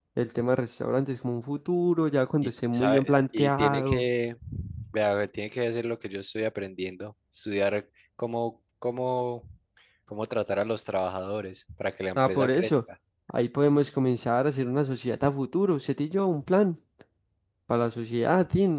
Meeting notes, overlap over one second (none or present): present